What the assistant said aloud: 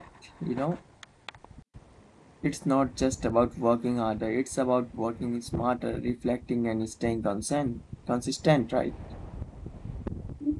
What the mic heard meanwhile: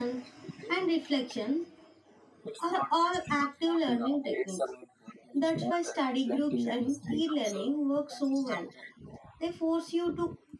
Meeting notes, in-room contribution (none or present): present